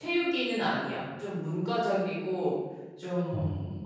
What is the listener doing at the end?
listening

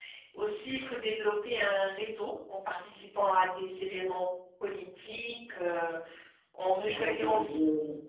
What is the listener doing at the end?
taking over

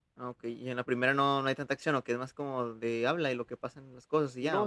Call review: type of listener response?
taking over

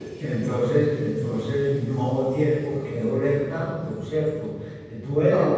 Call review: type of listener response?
listening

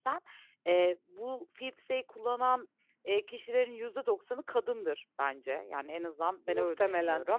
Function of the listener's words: listening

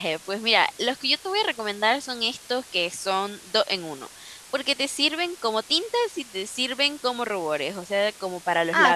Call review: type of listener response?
taking over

